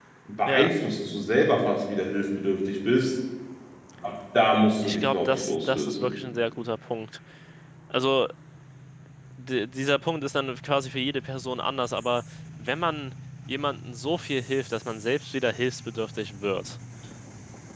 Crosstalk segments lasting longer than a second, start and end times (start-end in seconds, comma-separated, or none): 4.8-6.2